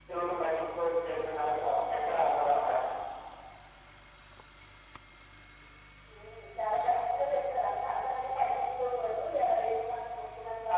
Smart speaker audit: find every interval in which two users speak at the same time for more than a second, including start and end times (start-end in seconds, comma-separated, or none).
none